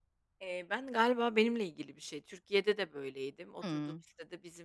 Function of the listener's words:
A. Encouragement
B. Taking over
A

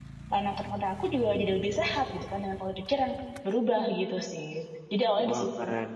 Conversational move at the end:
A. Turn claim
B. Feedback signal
A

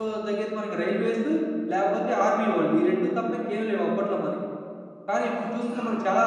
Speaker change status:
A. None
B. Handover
A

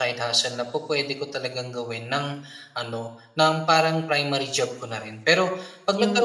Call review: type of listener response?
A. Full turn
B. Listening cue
B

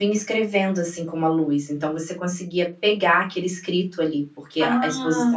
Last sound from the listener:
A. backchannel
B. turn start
B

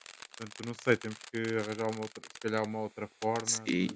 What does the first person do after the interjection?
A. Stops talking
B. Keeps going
A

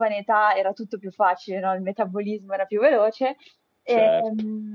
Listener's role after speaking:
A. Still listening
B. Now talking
A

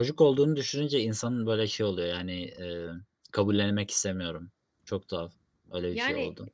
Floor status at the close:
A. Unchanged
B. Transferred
A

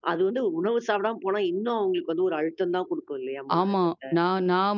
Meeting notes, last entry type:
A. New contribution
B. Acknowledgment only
A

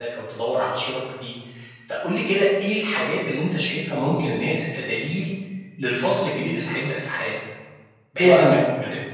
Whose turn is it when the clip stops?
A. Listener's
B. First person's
B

